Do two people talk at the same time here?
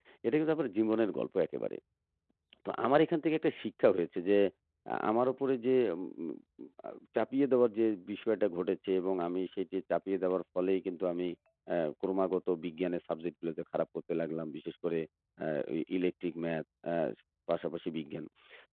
No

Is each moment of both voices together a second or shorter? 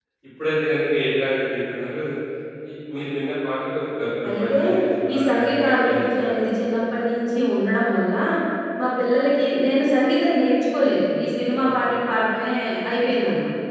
No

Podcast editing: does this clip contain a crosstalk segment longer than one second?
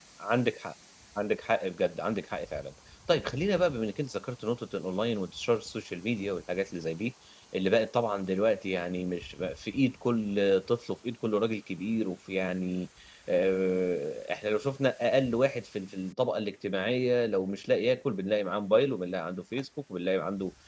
No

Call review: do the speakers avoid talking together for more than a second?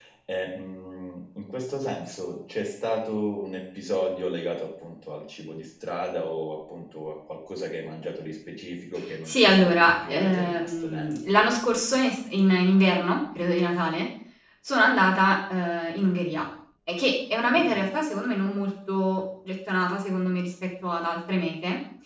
No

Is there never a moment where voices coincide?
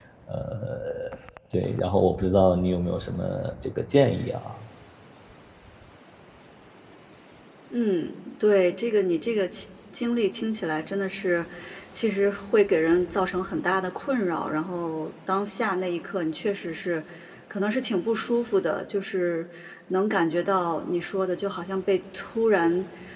Yes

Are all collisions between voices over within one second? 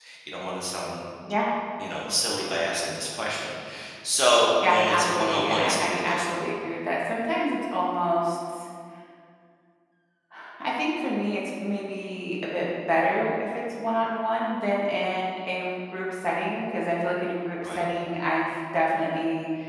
No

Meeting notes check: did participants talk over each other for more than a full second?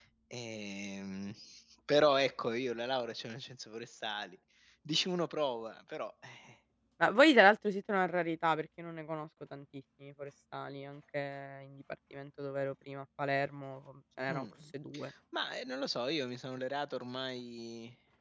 No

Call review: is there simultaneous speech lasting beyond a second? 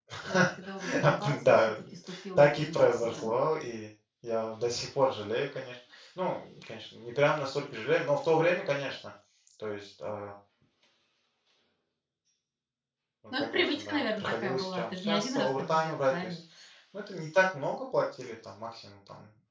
Yes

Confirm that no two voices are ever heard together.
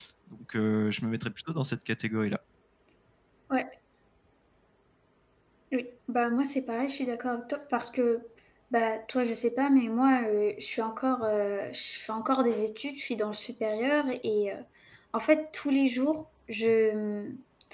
Yes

